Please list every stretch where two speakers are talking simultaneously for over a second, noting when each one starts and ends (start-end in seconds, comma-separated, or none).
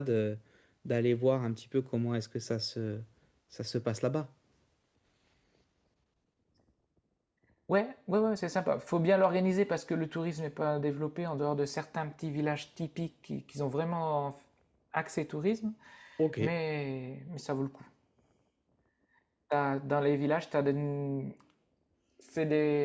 none